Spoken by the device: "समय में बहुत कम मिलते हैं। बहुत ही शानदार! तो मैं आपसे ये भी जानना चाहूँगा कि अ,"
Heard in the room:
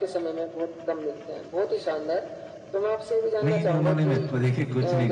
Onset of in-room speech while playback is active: 3.4 s

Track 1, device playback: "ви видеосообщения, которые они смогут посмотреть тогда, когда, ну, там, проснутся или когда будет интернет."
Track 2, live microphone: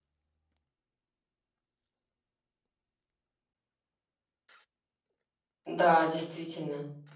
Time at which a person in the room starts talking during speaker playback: 5.6 s

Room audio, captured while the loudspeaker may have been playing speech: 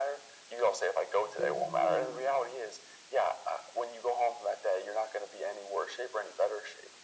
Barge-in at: 1.2 s

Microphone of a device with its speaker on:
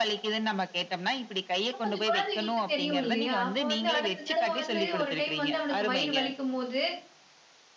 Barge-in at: 1.7 s

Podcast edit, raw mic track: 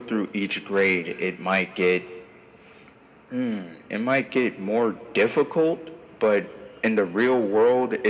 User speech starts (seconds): none

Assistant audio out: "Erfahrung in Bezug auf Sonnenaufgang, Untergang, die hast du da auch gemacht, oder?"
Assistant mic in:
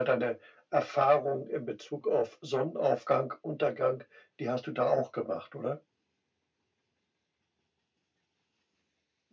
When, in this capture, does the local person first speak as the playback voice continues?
none

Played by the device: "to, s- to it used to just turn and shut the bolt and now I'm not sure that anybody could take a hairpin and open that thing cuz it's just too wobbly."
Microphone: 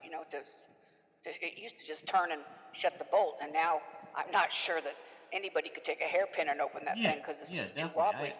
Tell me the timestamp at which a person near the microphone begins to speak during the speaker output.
6.9 s

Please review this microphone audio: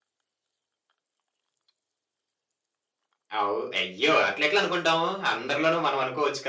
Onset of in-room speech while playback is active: 3.4 s

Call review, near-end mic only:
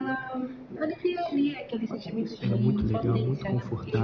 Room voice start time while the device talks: 2.4 s

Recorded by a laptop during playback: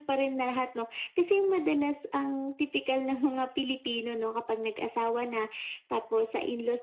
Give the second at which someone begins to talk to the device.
none

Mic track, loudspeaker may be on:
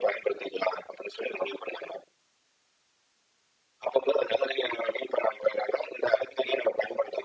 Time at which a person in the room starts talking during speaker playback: none

